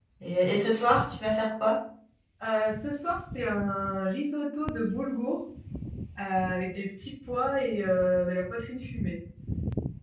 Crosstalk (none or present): none